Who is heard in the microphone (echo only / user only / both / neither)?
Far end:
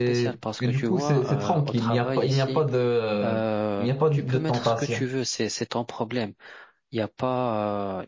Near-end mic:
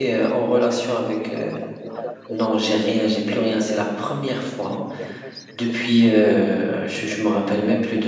both